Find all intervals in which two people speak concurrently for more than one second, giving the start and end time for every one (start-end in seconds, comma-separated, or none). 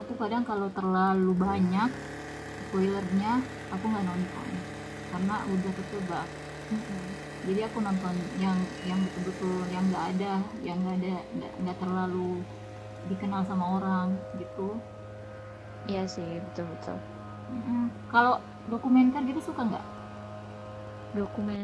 none